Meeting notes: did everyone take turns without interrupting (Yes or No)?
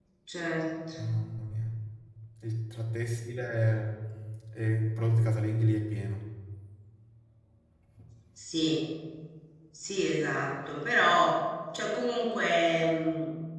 Yes